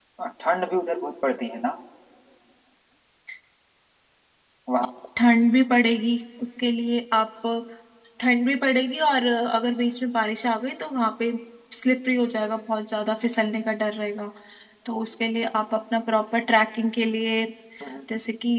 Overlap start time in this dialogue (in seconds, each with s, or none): none